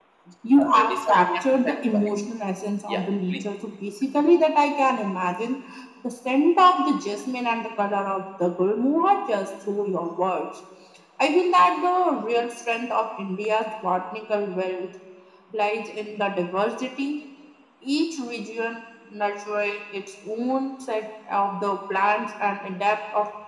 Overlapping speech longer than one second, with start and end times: 0.6-2.1

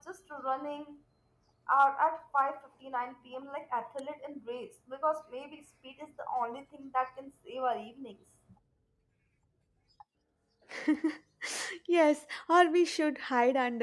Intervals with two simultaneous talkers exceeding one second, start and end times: none

